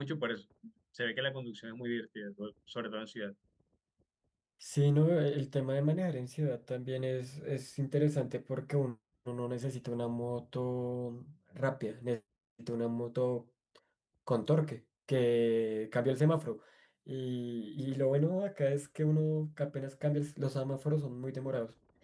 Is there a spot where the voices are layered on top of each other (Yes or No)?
No